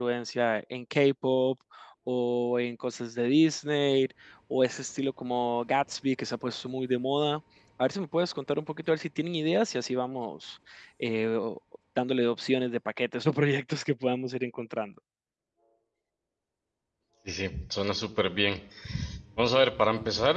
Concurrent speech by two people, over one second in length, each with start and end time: none

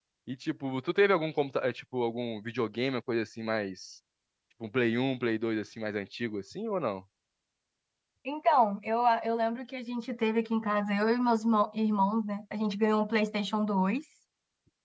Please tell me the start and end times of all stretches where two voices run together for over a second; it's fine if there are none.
none

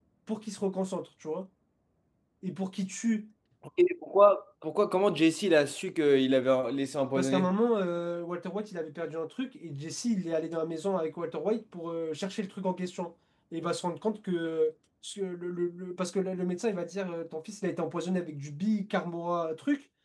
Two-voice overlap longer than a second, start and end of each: none

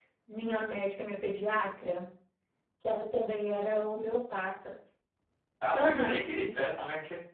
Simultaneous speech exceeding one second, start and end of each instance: none

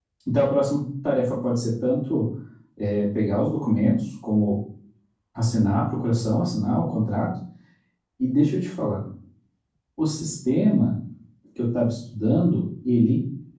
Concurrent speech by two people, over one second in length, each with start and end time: none

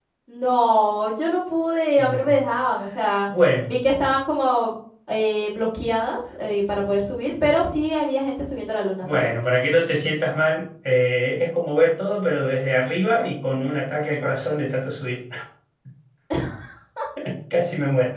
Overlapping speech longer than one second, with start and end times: none

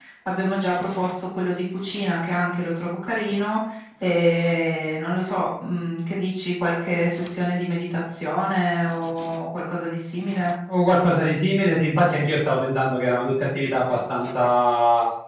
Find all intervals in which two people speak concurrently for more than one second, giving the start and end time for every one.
none

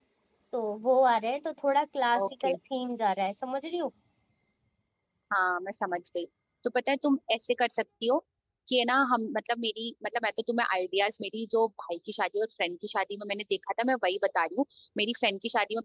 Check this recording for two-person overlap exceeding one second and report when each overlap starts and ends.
none

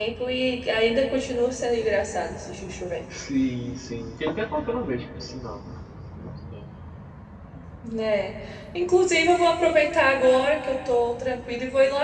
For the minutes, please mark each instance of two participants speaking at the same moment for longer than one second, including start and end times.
none

